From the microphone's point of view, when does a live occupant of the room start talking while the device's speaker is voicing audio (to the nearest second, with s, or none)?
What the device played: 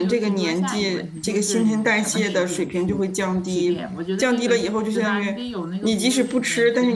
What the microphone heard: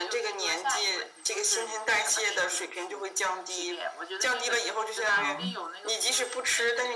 5 s